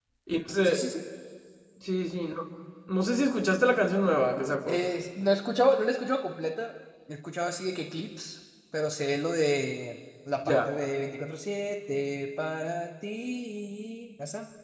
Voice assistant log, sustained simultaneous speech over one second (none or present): none